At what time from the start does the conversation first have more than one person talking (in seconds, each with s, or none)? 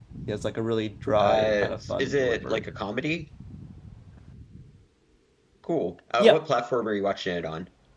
1.2 s